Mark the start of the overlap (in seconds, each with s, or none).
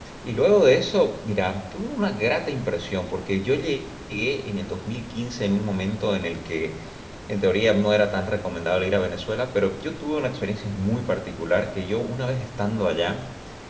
none